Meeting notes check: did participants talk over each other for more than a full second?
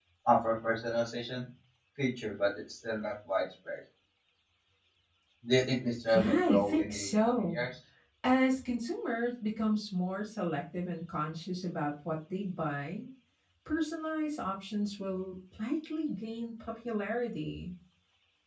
Yes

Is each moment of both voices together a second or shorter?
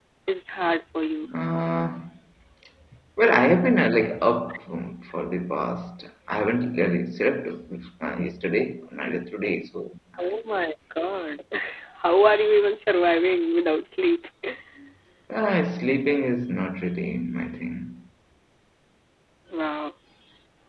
Yes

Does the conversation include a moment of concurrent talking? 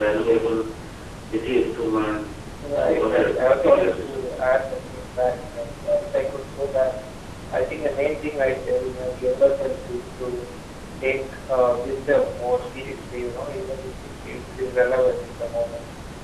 Yes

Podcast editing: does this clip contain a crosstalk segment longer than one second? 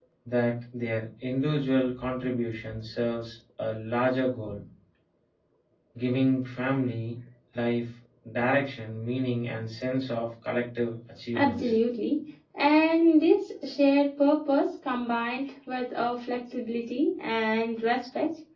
No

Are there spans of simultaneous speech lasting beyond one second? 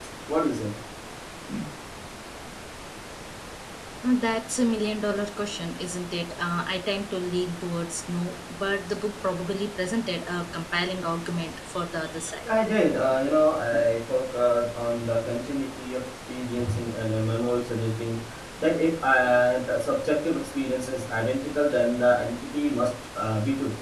No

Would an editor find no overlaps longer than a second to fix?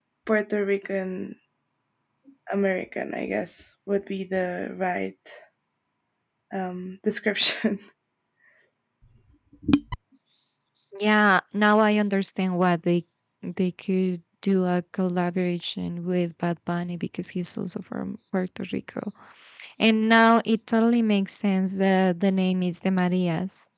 Yes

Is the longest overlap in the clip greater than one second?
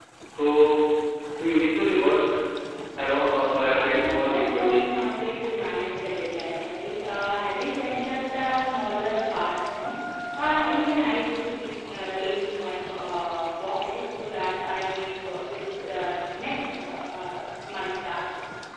Yes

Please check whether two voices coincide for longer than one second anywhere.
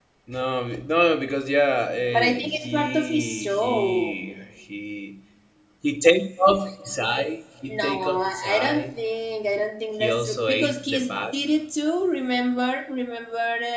Yes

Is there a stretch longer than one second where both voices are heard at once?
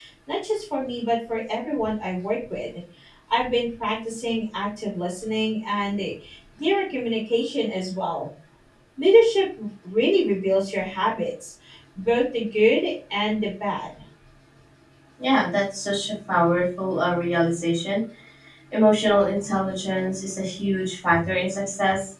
No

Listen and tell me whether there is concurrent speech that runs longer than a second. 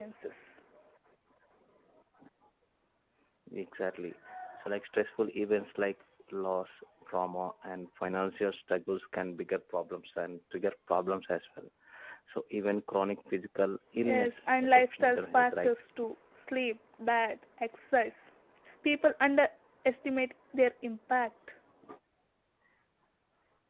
Yes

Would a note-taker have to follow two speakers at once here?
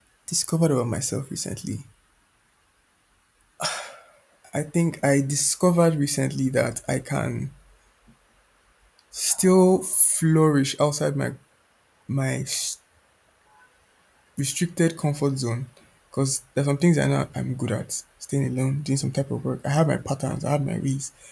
No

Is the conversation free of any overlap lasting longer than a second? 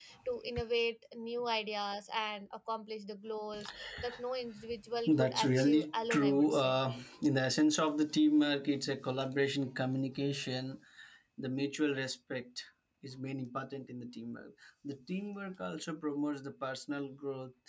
No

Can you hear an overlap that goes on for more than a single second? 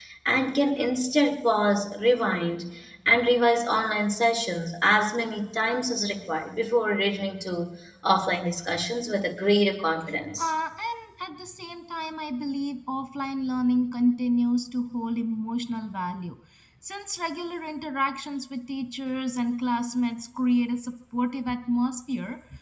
No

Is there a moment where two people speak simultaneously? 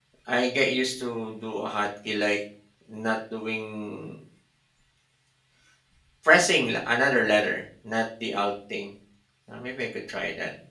No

